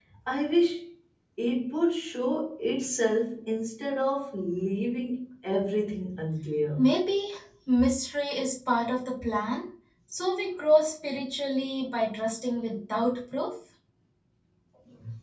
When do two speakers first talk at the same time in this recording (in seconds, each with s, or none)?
none